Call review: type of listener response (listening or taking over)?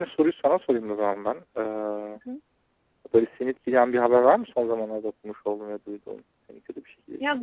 taking over